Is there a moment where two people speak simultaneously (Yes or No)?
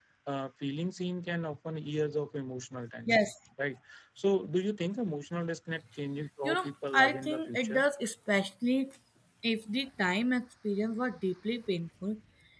Yes